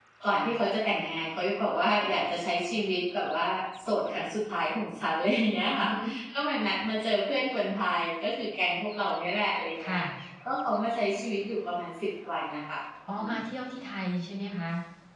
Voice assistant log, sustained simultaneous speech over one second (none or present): none